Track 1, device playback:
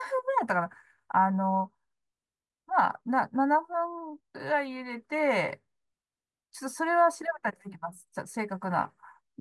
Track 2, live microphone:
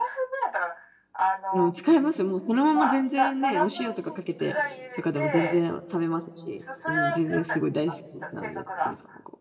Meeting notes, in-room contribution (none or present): present